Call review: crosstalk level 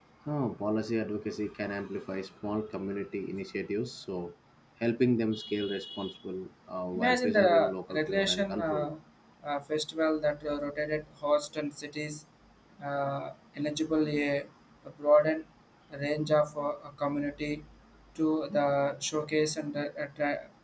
present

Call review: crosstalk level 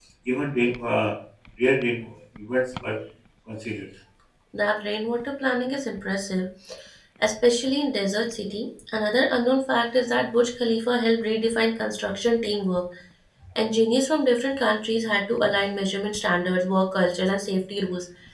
none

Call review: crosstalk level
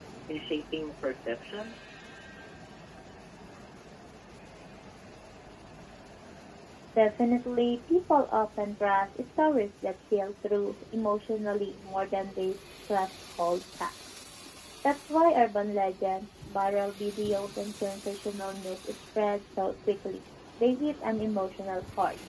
none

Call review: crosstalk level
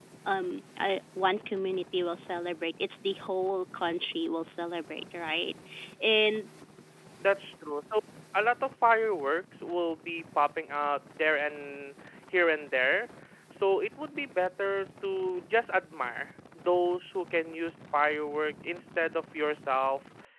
none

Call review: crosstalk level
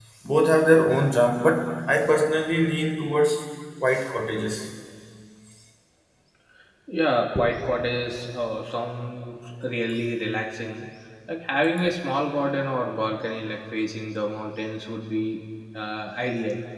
none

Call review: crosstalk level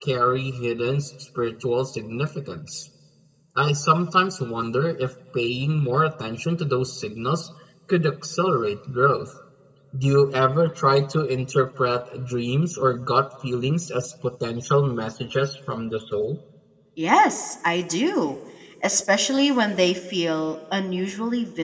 none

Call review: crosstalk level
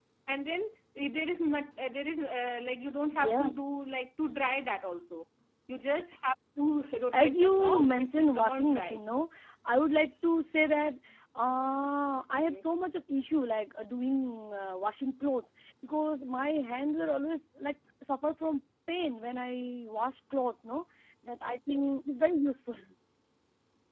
present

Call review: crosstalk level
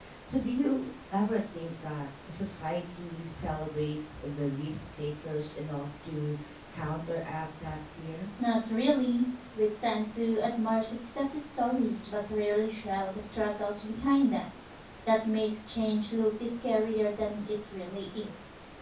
none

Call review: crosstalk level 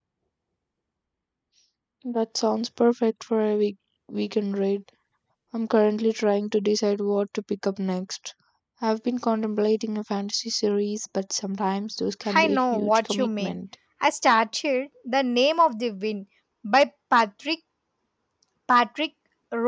present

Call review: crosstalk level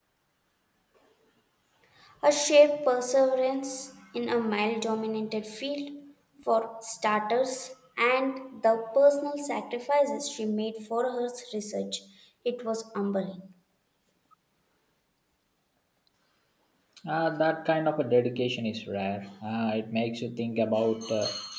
none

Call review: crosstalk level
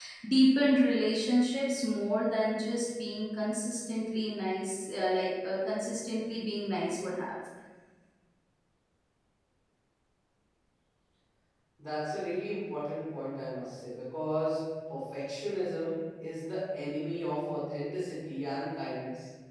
none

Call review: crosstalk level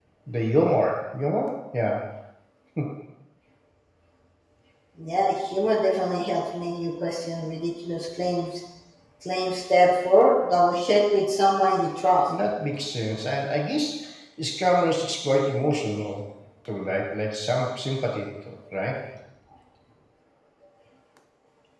none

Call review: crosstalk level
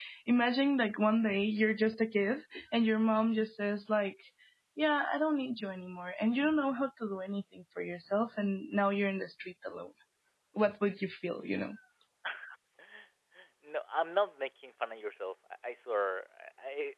none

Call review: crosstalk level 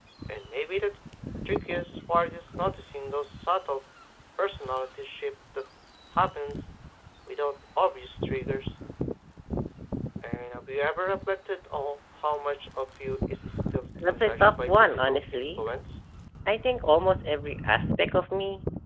present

